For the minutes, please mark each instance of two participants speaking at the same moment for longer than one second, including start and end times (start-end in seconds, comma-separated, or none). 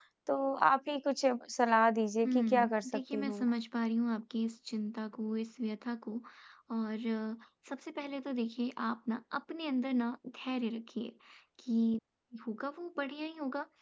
2.2-3.5